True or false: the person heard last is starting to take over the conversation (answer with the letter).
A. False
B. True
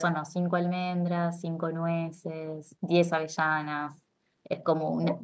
A